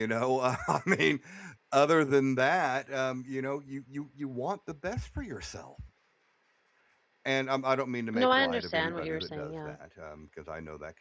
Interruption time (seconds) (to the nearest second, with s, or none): 8 s